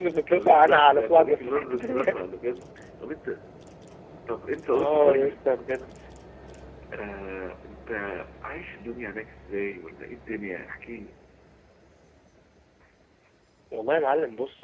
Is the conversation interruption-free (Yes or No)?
No